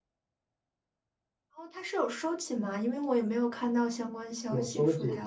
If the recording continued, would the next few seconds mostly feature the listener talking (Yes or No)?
Yes